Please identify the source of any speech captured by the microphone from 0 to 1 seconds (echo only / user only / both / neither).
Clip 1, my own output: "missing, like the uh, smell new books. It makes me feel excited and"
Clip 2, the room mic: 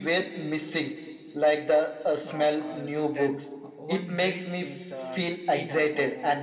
echo only